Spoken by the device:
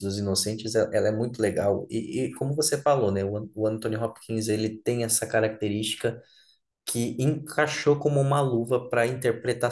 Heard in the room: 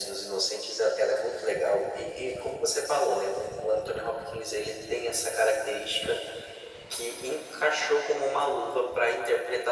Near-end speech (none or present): none